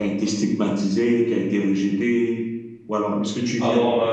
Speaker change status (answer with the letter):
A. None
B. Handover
A